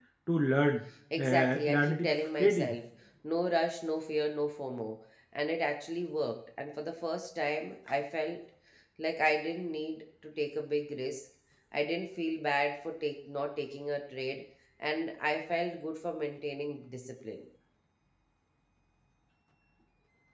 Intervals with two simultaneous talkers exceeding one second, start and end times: 1.2-2.8

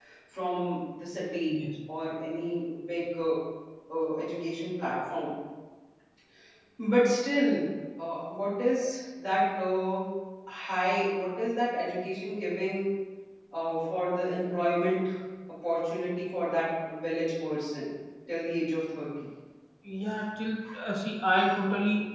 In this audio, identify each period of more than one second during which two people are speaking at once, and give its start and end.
none

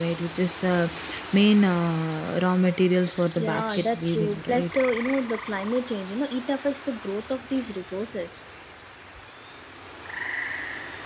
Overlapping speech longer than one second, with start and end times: 3.4-4.8

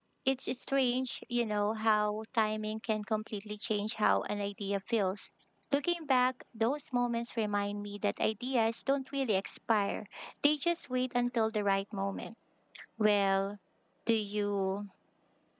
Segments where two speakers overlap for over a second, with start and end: none

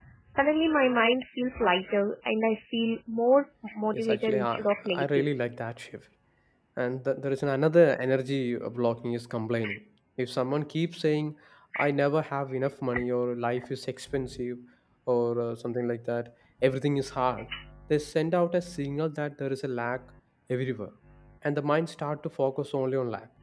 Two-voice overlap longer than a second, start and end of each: 3.9-5.3

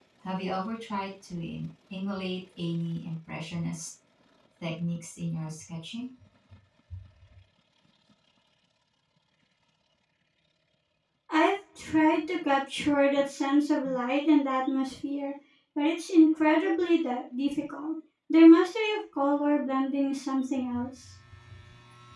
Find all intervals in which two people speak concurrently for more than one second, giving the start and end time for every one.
none

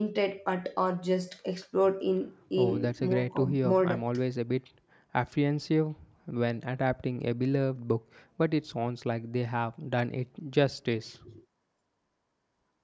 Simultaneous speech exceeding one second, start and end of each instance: 2.6-4.0

